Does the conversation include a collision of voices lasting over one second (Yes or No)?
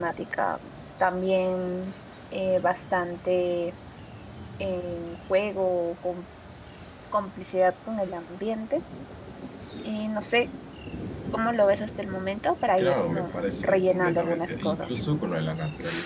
Yes